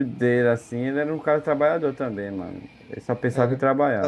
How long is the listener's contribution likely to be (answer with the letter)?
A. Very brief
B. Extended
B